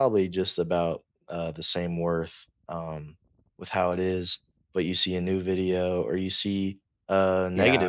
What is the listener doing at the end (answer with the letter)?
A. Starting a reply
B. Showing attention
B